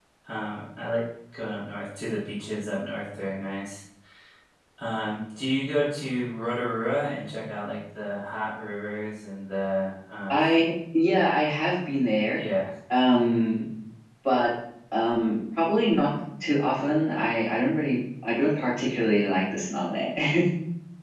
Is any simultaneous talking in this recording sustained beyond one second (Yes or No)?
No